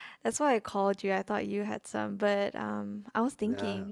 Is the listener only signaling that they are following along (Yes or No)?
Yes